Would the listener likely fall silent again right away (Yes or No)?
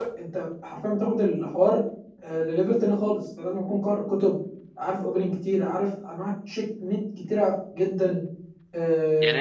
No